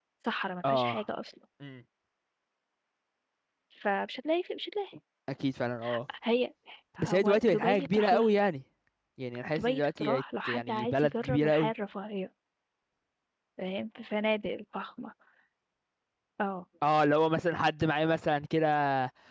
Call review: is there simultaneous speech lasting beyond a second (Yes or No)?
Yes